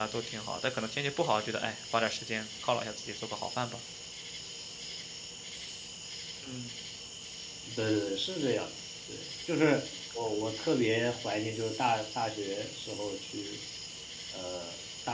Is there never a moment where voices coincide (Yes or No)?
Yes